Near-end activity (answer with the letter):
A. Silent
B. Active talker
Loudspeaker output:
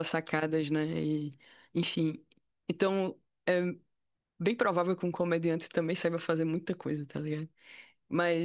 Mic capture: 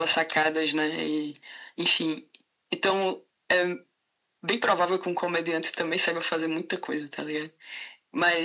A